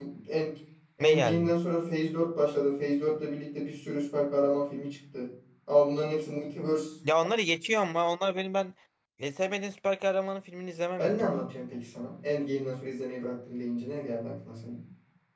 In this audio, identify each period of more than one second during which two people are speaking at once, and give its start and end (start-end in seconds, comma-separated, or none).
none